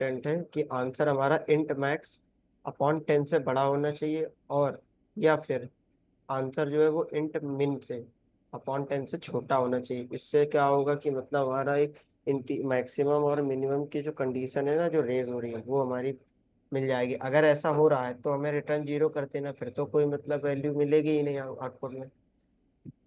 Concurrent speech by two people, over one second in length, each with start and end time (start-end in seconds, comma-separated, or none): none